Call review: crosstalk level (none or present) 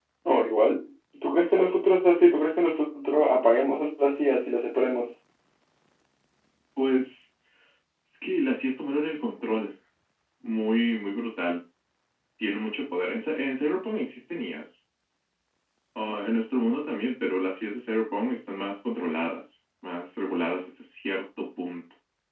none